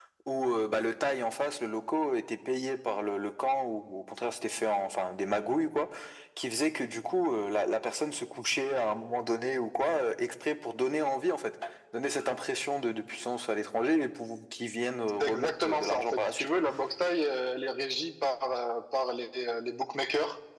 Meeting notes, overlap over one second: present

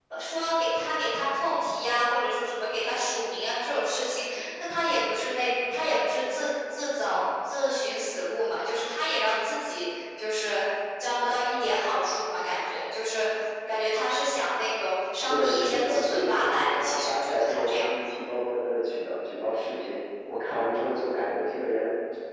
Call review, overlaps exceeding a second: present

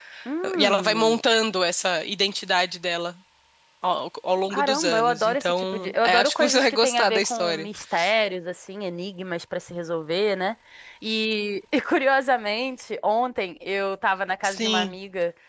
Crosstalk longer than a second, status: present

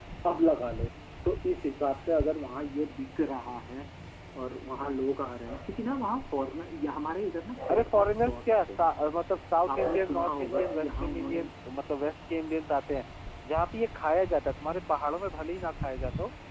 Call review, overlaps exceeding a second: present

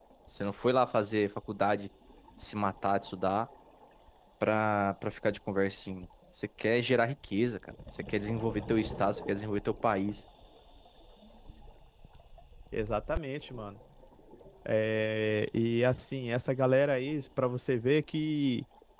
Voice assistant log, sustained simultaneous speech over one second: none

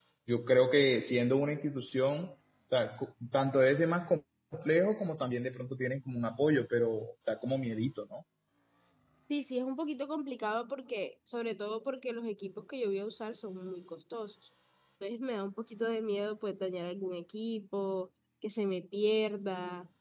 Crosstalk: none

